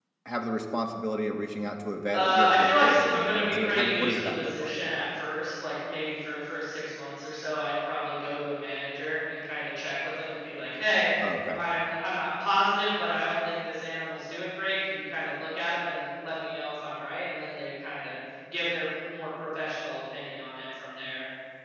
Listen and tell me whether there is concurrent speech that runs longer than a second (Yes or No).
Yes